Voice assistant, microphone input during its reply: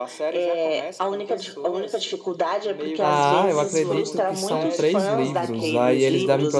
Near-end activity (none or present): present